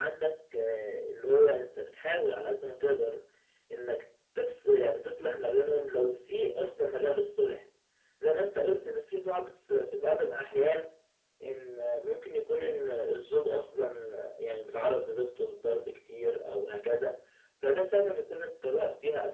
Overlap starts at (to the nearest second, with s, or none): none